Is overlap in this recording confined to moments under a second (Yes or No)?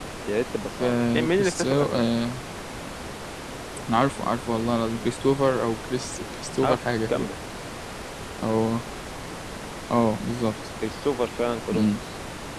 No